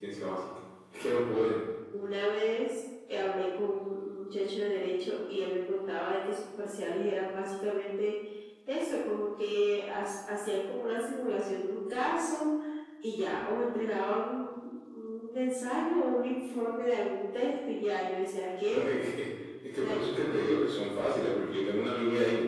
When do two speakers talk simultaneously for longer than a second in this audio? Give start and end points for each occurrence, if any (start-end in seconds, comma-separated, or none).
none